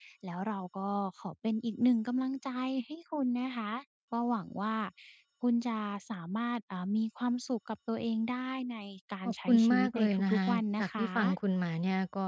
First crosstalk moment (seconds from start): 9.2 s

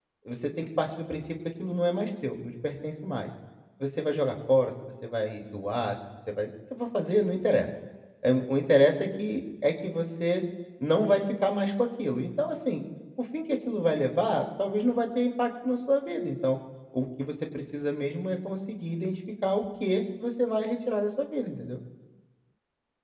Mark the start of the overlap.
none

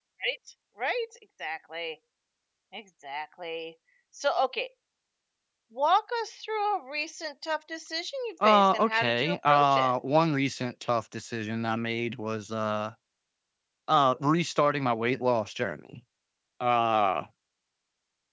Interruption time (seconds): 8.4 s

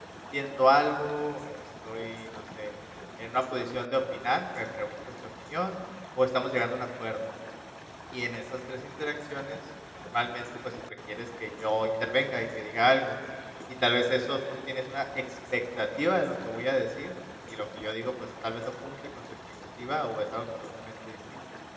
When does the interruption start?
none

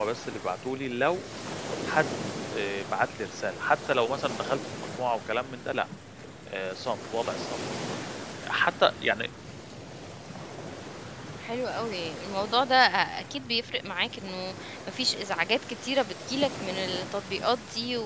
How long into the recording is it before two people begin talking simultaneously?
none

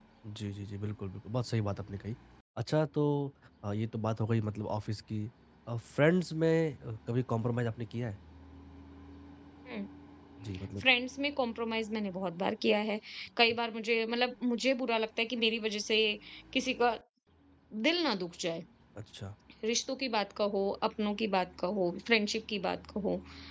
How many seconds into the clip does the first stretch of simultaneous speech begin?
none

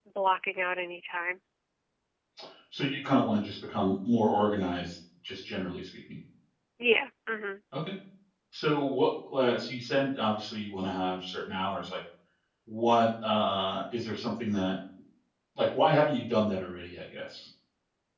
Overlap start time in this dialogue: none

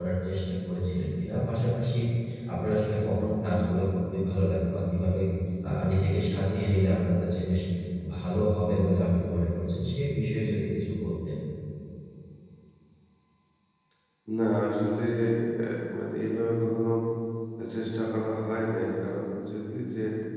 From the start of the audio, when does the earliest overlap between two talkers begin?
none

